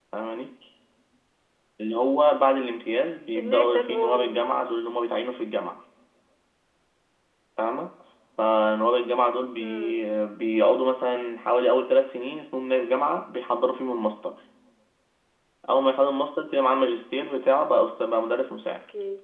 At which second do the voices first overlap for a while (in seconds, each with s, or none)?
3.4 s